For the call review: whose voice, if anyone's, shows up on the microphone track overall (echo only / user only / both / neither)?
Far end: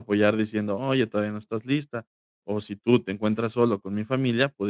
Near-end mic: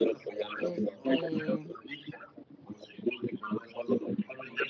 both